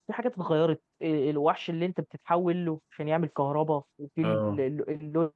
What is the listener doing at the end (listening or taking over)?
listening